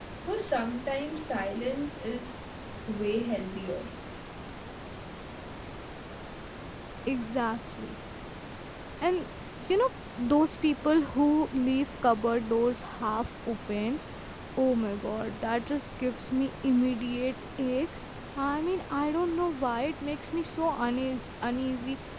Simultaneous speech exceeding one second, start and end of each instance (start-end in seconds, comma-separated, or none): none